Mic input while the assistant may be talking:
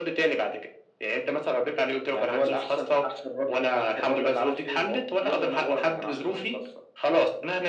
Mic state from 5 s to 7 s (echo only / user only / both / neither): echo only